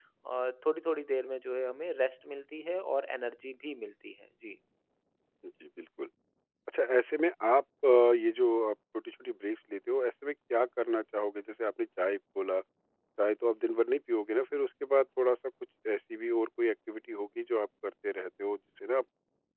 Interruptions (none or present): none